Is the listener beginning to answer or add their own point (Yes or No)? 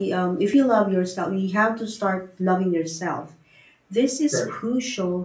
No